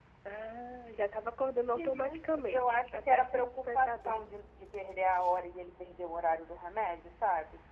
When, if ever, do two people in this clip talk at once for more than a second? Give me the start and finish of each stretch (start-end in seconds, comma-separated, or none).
1.7-4.2